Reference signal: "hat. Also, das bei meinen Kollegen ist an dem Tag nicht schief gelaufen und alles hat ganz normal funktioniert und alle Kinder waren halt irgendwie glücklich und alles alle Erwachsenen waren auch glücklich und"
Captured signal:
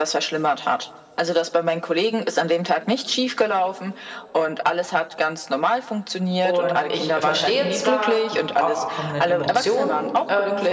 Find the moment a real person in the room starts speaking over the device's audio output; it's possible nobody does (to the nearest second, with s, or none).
6 s